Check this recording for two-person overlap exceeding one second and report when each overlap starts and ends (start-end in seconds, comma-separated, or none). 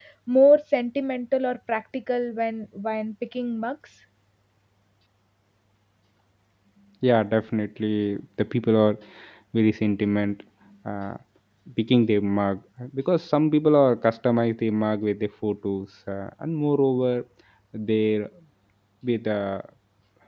none